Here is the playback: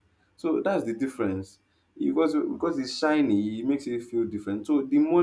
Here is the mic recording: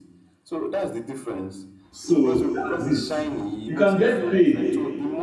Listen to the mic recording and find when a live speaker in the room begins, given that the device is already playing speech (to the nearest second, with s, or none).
2 s